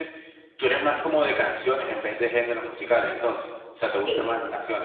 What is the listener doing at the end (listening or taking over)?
taking over